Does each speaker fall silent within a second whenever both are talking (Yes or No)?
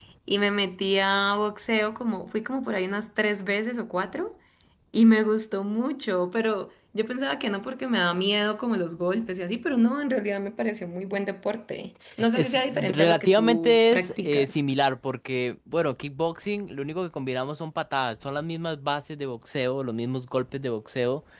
No